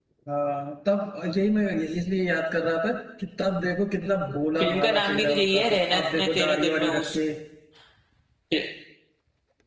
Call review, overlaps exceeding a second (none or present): present